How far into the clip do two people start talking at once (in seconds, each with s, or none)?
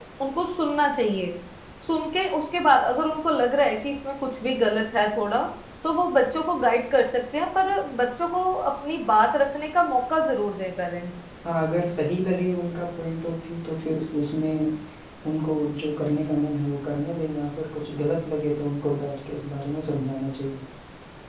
none